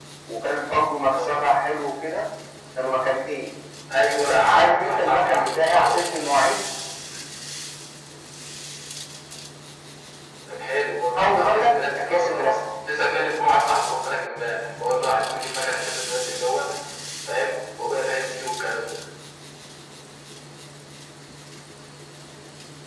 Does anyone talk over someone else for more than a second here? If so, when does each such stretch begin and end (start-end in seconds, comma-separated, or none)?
4.2-6.0, 11.2-12.6